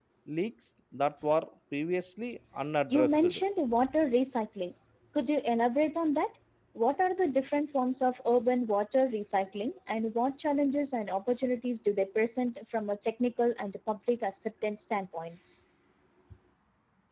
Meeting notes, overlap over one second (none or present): none